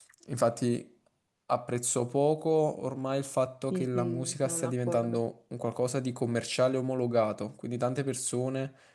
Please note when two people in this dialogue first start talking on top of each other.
3.7 s

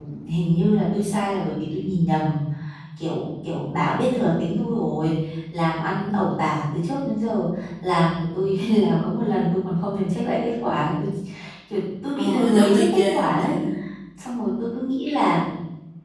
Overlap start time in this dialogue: 12.2 s

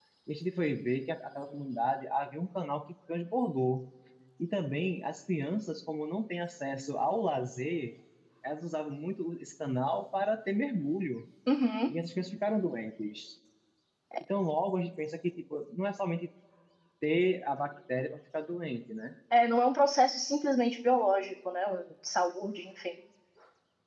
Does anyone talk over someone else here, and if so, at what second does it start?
none

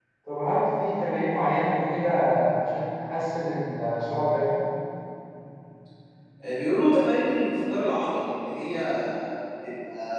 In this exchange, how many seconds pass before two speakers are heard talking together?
none

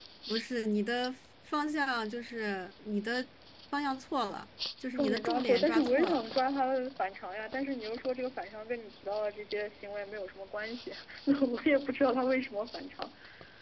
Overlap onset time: 5.0 s

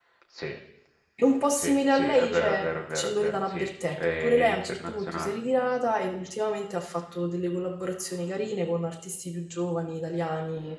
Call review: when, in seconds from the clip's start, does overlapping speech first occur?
1.6 s

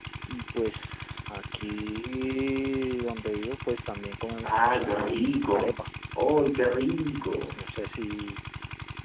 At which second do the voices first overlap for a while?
4.4 s

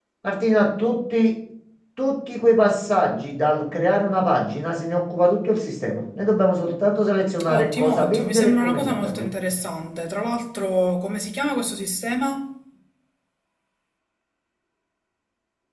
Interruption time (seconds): 7.4 s

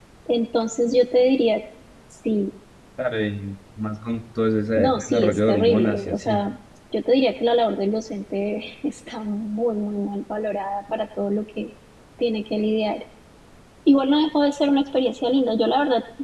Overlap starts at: 4.8 s

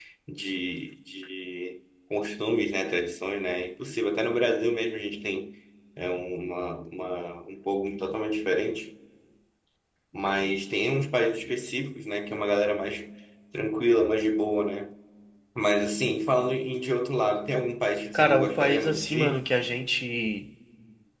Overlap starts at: 18.1 s

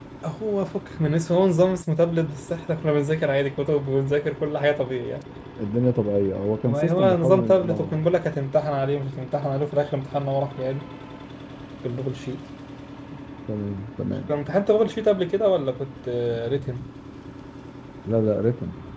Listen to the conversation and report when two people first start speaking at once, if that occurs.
6.7 s

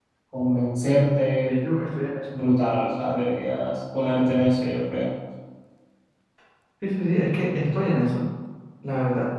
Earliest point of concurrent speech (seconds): none

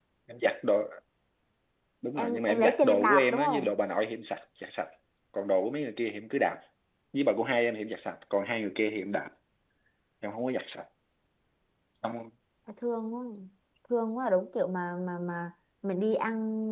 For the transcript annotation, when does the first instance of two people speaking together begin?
2.2 s

